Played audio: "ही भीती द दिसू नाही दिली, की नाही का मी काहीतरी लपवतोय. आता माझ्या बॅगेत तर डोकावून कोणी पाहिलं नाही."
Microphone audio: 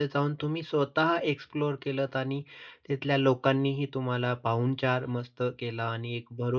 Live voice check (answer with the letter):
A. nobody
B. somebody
B